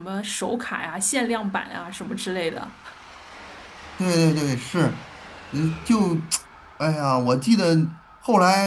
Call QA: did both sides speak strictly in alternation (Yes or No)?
Yes